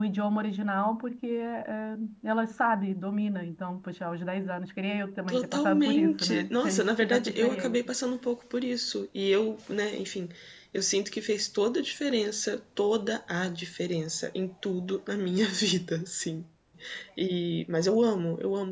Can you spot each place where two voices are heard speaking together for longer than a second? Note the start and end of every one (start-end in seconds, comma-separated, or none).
5.3-7.8